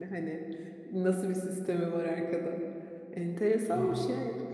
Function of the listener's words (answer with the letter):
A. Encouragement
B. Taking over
A